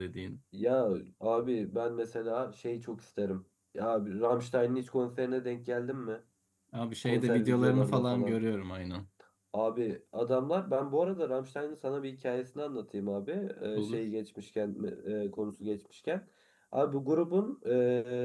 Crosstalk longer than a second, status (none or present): present